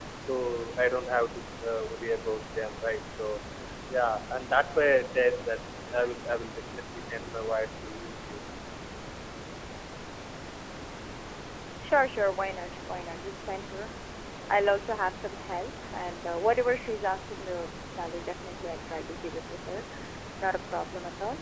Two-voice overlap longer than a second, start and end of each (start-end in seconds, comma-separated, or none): none